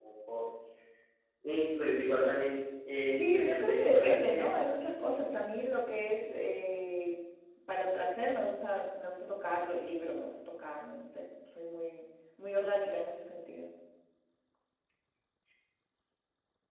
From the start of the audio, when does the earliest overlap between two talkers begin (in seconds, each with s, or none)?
3.1 s